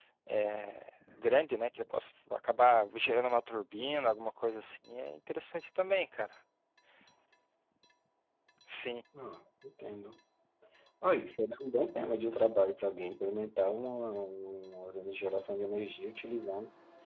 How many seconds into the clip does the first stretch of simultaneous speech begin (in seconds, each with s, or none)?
none